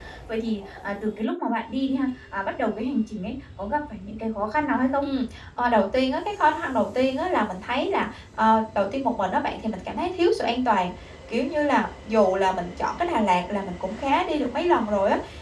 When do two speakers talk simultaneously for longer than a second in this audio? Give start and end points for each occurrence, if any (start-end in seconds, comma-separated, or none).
none